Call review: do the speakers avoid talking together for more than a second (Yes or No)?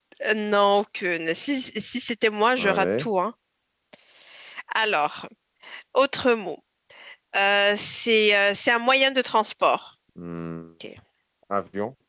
Yes